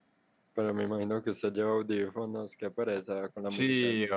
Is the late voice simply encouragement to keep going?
No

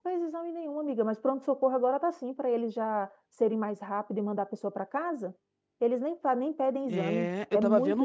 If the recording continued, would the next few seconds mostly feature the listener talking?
Yes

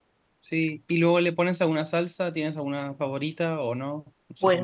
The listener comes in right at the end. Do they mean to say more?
Yes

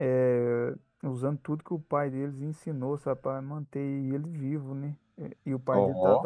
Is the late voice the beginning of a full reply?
No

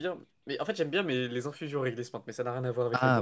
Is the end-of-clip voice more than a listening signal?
Yes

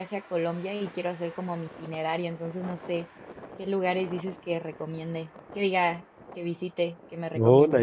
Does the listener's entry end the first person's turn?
Yes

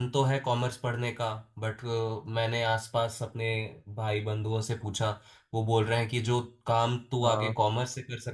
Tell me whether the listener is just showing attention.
Yes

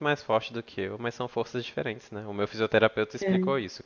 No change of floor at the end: Yes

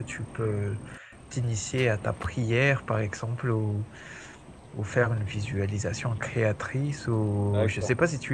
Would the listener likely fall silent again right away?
Yes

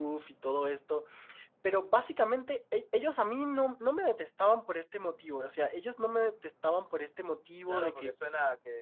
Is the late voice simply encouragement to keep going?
No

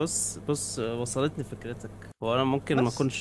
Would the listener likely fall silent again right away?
Yes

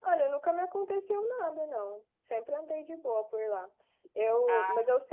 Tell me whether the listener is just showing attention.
Yes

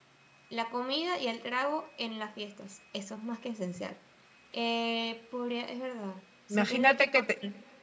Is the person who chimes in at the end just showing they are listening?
No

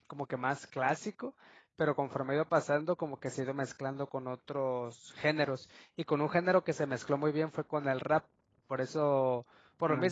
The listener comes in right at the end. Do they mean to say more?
No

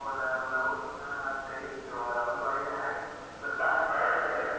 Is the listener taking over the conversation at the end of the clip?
No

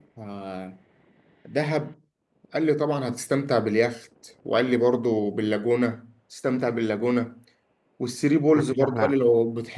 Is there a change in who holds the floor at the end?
No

